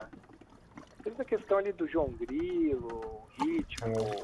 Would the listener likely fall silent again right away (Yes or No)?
Yes